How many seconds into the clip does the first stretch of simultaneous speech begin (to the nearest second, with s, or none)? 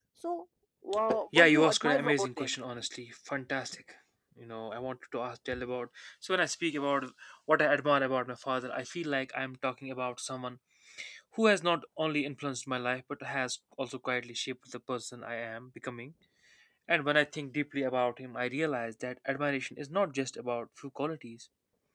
1 s